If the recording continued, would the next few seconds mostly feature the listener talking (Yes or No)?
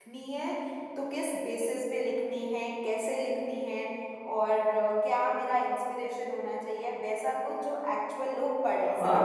Yes